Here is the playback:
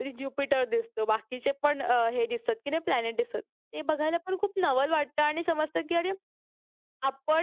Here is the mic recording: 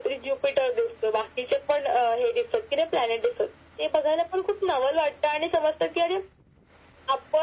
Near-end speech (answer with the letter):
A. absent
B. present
A